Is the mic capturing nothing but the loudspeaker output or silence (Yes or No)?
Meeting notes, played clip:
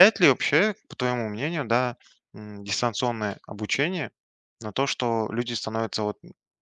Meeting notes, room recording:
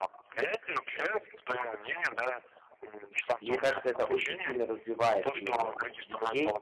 No